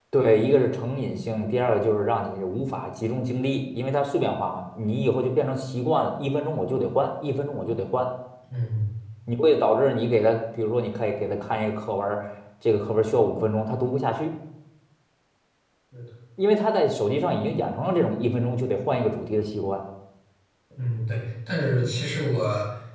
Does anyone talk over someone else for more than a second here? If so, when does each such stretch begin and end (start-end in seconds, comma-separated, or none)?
none